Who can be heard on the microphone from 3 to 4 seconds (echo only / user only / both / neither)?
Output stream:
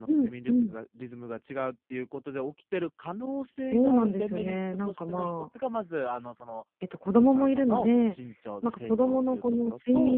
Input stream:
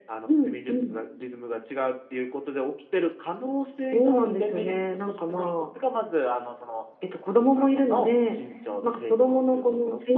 echo only